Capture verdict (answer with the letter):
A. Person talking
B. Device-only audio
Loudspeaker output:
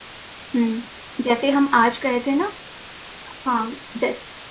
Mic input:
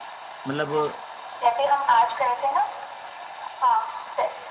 A